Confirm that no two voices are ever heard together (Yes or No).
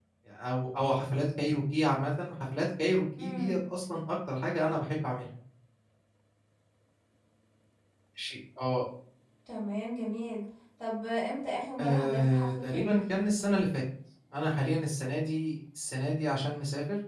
No